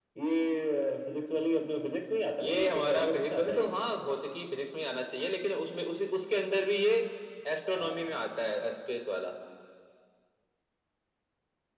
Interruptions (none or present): present